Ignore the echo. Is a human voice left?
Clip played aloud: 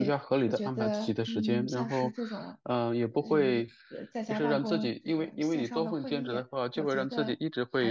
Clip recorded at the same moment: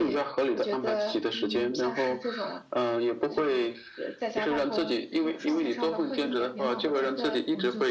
Yes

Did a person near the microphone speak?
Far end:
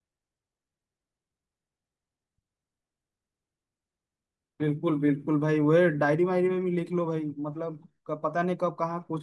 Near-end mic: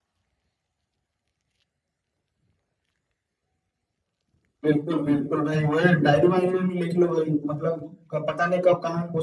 No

